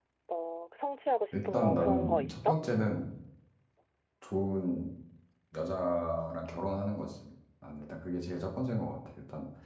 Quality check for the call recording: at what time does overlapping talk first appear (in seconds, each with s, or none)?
1.3 s